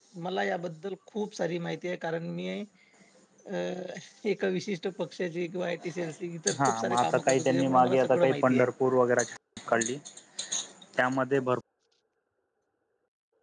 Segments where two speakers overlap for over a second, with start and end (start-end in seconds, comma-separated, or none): 6.6-8.7